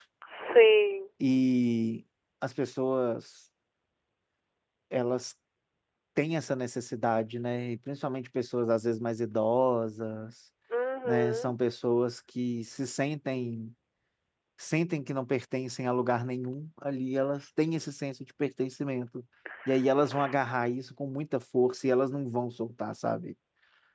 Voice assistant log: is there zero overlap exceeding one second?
Yes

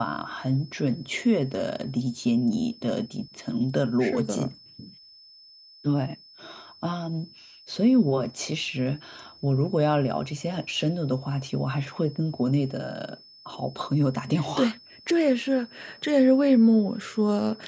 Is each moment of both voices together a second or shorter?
Yes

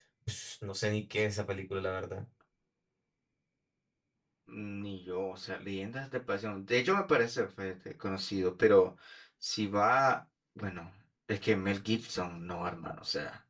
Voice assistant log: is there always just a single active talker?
Yes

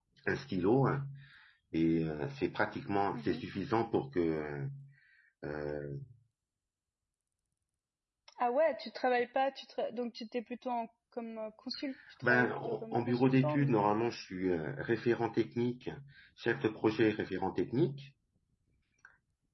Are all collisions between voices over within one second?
No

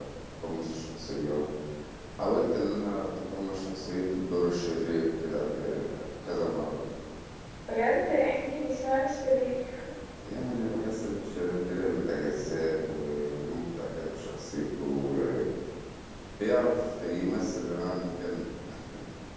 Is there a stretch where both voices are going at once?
No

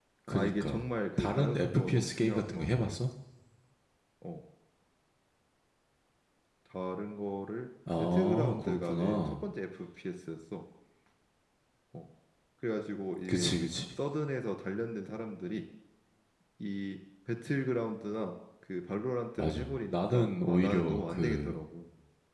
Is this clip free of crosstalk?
No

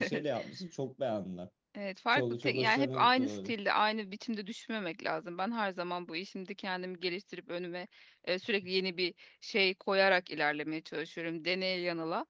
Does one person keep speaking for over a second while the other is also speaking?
Yes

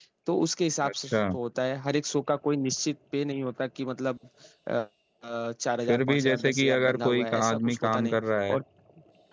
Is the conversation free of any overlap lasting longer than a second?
No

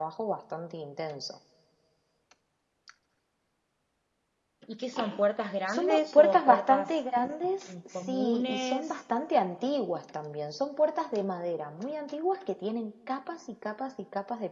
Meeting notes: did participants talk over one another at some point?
Yes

